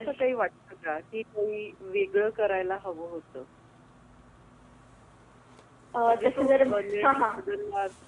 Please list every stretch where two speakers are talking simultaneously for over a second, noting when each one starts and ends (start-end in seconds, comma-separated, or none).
6.0-7.4